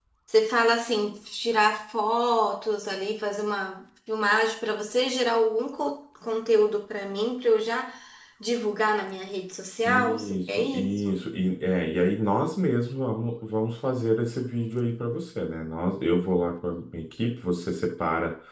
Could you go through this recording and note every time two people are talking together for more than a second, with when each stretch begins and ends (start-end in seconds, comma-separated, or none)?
9.8-11.3